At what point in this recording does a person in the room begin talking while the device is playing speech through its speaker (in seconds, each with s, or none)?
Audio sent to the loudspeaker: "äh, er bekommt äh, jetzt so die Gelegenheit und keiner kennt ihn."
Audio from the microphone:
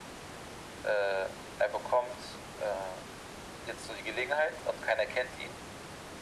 none